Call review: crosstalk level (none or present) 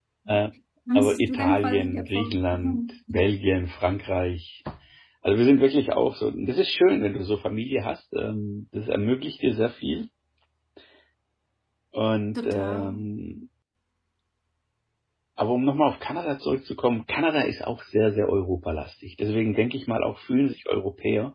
present